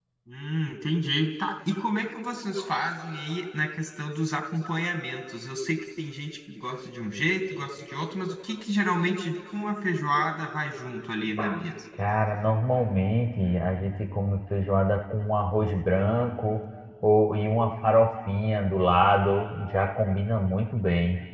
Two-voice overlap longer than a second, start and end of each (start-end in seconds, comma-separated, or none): none